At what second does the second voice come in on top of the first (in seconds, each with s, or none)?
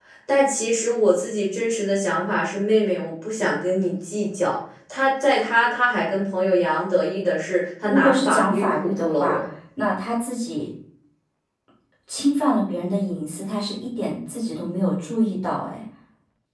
7.8 s